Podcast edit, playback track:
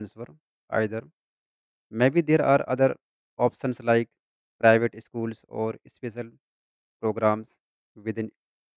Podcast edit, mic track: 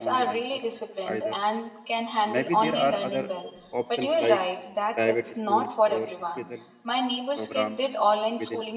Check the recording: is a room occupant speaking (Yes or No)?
Yes